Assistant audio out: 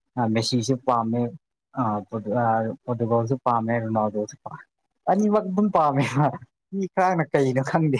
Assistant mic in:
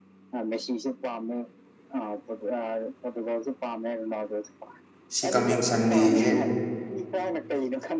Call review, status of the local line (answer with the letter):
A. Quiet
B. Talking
B